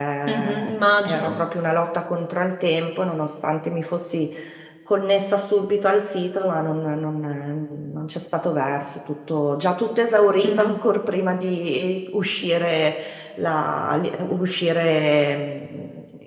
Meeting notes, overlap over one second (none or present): none